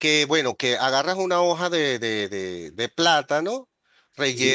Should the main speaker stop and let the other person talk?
No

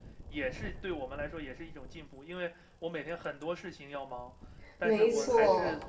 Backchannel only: Yes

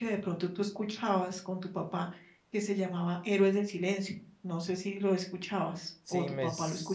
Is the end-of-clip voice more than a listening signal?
Yes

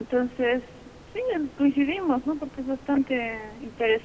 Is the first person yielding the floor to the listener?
No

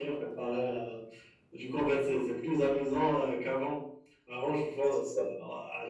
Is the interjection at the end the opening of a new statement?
No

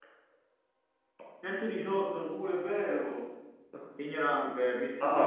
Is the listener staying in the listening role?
No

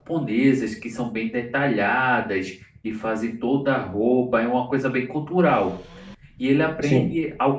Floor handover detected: No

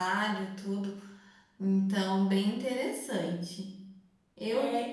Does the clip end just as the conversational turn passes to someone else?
Yes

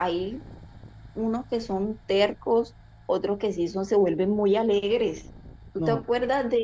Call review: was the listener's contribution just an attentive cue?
Yes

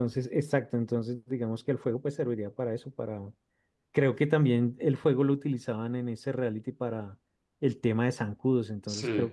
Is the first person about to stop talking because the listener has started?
No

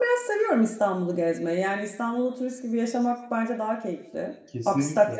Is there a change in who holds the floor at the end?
No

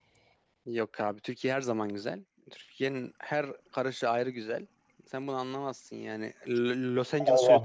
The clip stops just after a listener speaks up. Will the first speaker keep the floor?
No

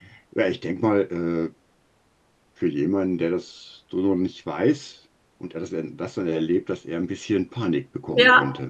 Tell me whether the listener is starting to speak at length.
Yes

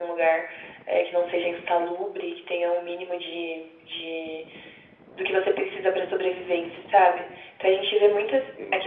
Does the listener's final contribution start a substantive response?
No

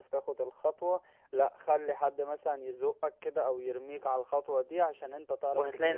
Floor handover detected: Yes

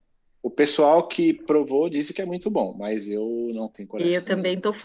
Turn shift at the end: Yes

